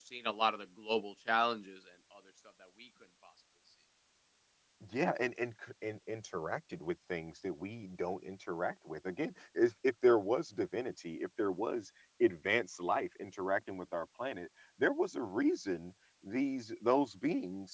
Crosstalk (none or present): none